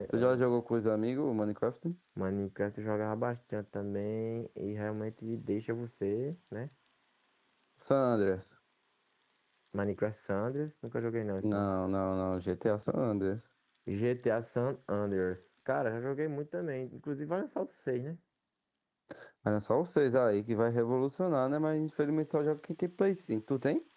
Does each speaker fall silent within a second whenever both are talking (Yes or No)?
Yes